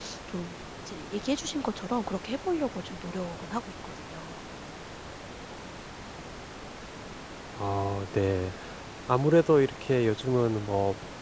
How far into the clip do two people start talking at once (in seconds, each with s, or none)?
none